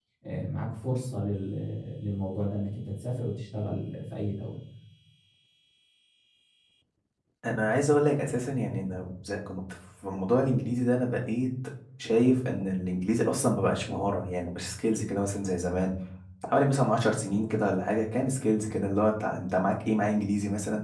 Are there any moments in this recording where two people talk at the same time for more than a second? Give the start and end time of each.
none

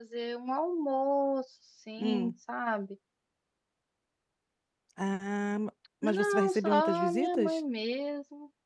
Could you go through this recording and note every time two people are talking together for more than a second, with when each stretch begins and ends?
6.0-7.6

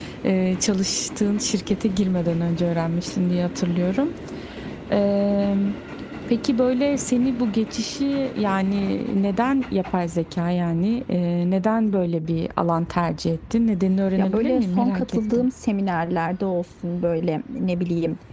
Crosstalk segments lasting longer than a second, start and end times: 14.2-15.4

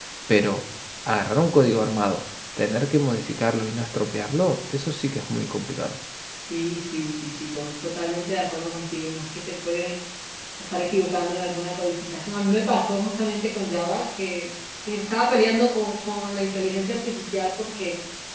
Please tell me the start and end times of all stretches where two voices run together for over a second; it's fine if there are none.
none

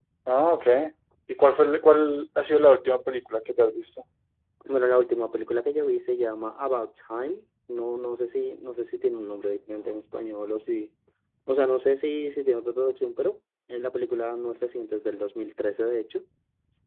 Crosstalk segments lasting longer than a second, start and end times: none

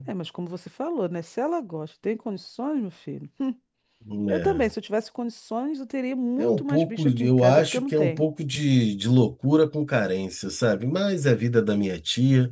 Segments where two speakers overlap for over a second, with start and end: 6.4-8.2

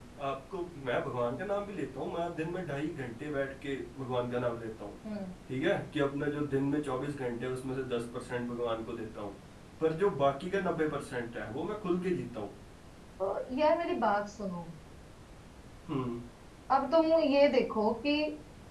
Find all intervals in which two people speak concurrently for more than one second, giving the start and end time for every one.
none

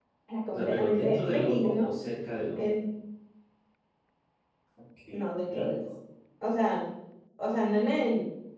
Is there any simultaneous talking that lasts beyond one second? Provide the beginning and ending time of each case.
0.5-1.9

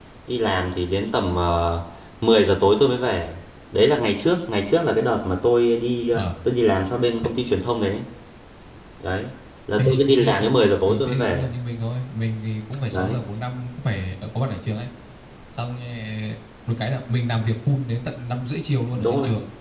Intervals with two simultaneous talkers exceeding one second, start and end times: 9.8-11.5

